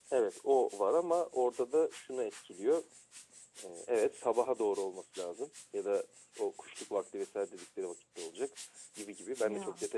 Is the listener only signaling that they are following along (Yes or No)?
Yes